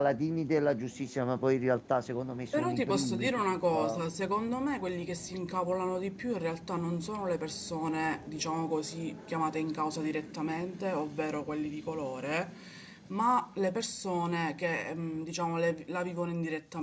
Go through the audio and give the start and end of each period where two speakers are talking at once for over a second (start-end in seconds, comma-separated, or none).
2.5-4.0